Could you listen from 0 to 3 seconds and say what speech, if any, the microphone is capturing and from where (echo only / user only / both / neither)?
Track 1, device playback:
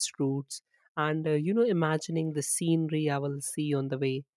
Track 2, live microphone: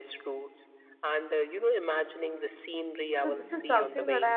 echo only